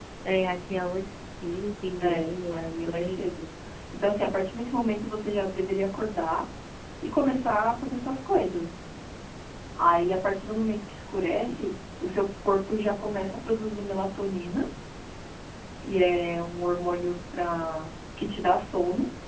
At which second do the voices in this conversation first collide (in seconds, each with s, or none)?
2.0 s